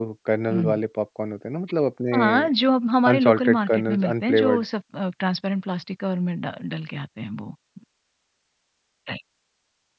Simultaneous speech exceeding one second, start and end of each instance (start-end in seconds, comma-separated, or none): 3.1-4.6